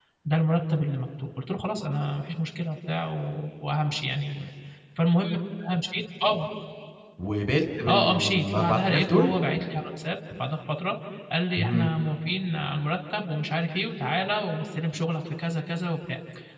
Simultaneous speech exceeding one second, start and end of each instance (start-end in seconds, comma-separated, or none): 7.9-9.3